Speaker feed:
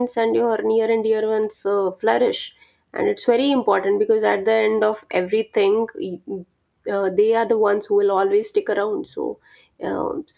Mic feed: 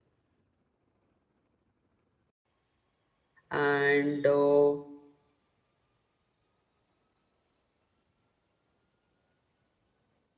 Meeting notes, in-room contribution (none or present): present